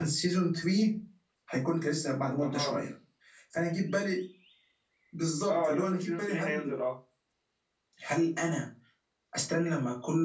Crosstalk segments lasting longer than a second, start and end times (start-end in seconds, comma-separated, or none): 5.5-6.7